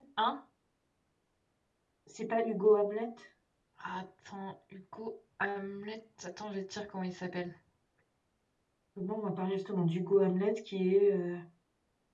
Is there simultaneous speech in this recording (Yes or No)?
No